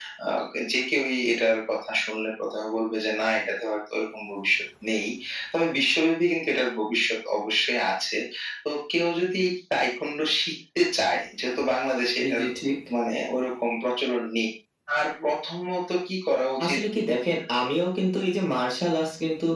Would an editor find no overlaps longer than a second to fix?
Yes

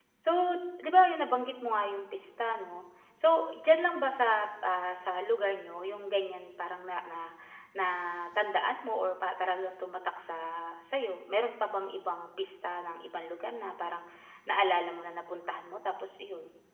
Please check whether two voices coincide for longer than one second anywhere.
No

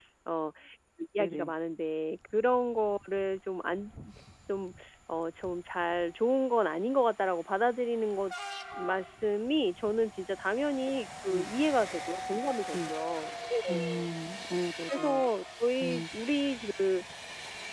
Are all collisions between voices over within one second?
Yes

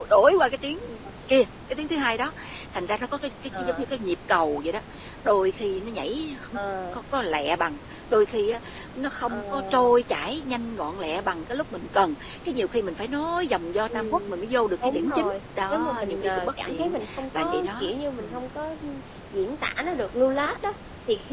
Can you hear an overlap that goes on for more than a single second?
Yes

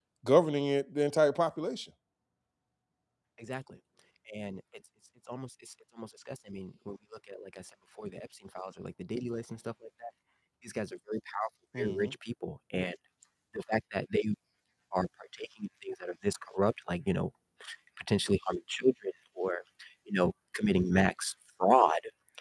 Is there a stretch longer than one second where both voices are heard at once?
No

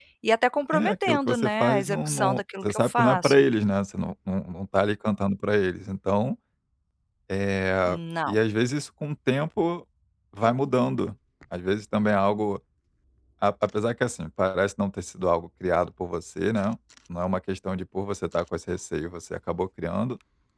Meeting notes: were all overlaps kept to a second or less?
No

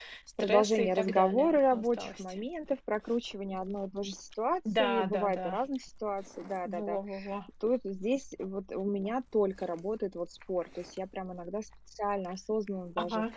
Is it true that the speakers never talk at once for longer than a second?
No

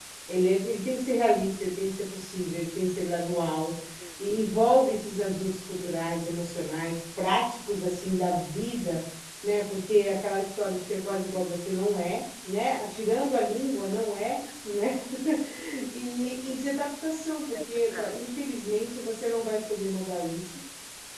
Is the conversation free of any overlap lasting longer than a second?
Yes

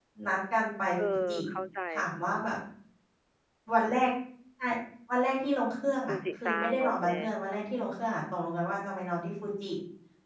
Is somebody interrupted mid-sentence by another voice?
Yes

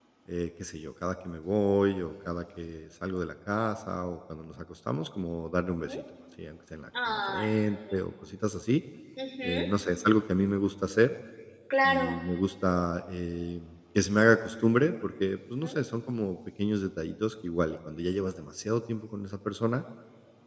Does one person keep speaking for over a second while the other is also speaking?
No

